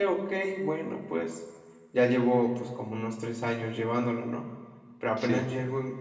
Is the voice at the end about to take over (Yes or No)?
No